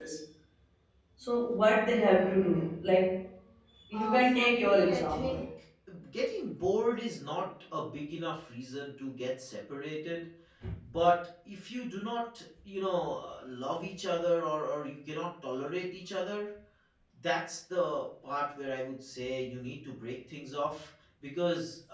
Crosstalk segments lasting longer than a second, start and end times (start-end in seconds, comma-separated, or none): 3.9-5.4